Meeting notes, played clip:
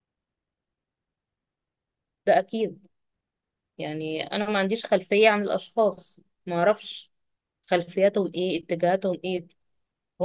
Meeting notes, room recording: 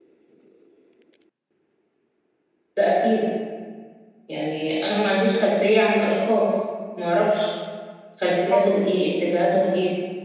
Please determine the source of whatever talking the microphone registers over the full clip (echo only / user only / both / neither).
both